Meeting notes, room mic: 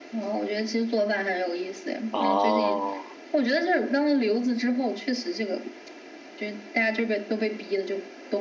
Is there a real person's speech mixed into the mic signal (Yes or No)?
Yes